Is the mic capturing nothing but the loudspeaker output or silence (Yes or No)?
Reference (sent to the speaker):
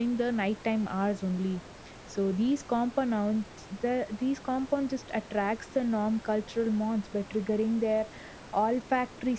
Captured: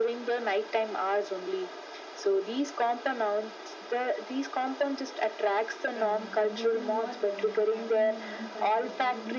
No